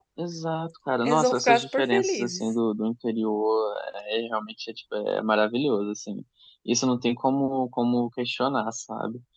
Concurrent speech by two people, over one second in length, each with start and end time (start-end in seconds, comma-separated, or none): 1.0-2.4